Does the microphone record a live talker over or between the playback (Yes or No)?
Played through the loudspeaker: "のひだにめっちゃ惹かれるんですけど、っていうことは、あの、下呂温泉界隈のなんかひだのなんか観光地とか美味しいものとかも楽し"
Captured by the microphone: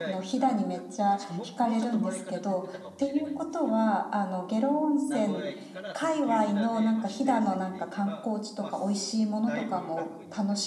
Yes